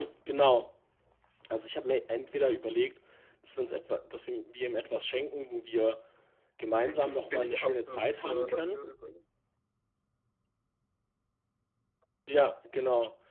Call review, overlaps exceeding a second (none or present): present